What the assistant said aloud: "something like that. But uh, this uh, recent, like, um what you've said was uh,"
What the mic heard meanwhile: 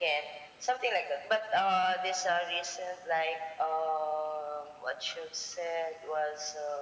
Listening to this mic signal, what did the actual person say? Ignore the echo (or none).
none